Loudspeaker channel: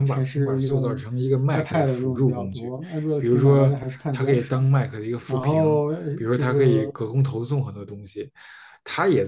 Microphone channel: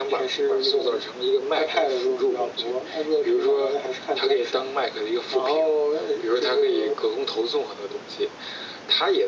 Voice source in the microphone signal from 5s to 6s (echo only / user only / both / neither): echo only